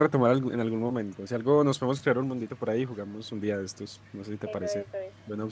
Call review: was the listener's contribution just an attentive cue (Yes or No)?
No